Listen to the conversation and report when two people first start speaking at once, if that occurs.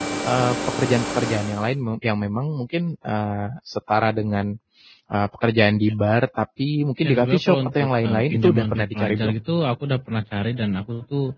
7.0 s

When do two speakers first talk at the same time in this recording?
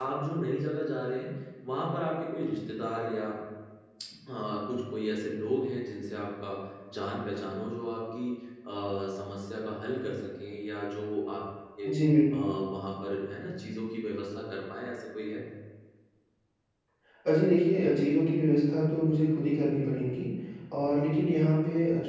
none

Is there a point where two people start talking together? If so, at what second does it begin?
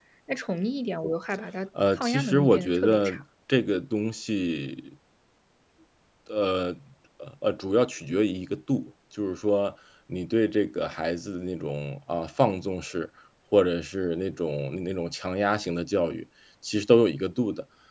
1.8 s

